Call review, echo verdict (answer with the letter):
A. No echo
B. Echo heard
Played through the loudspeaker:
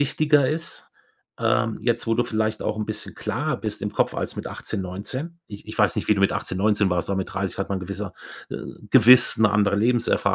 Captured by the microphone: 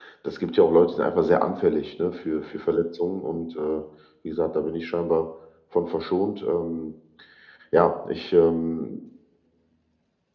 A